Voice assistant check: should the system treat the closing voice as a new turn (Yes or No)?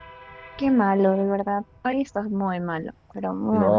Yes